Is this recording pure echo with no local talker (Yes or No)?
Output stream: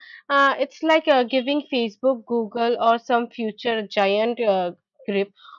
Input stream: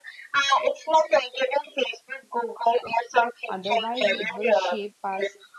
No